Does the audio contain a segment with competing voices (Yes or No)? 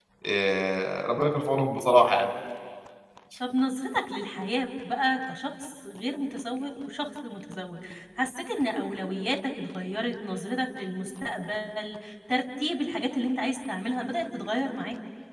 No